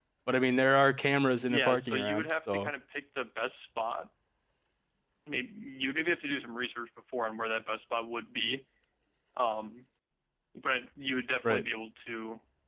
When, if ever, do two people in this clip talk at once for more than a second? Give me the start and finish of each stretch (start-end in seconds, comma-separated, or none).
1.5-2.7